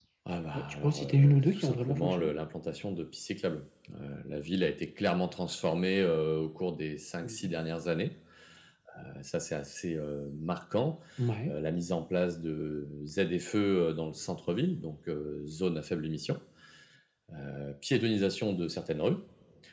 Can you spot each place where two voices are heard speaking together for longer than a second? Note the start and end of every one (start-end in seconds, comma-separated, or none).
0.5-2.3